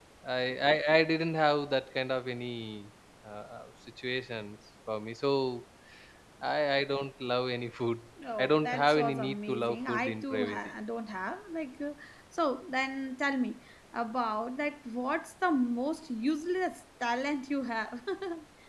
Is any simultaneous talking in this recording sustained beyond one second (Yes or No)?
Yes